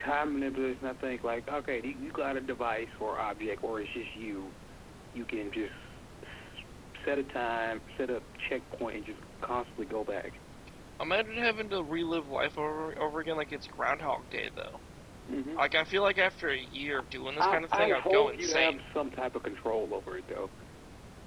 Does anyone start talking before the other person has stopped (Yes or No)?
Yes